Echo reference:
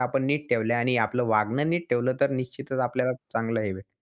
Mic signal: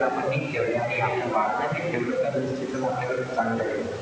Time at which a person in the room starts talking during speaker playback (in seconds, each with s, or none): none